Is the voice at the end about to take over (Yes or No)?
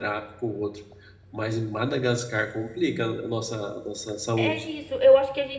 Yes